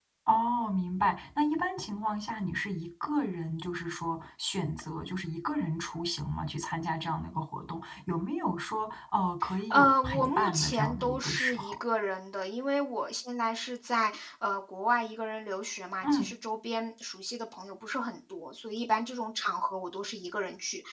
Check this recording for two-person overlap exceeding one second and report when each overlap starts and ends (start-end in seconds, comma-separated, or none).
9.7-11.7